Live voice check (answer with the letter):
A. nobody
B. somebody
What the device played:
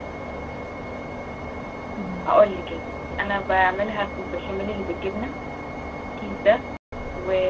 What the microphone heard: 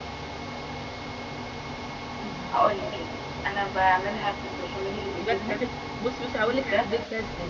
B